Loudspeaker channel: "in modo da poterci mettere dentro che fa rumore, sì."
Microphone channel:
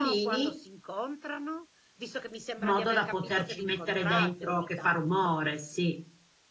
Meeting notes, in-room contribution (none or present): present